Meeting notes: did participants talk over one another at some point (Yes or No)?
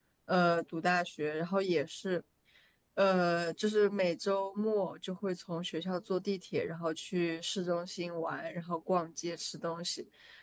No